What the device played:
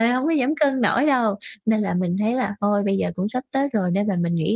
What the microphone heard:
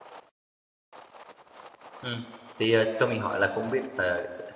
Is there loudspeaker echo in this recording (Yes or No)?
No